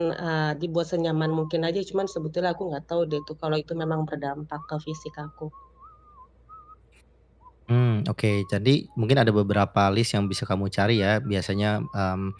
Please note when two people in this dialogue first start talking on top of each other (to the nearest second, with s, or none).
none